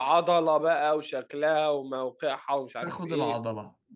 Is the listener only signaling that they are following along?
No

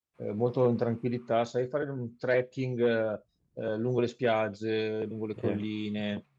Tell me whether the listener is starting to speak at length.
No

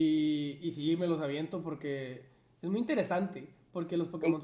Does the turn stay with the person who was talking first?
Yes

